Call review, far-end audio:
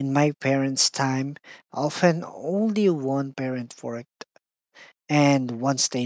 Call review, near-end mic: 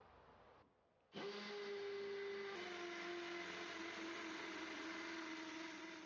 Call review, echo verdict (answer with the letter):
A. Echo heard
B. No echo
B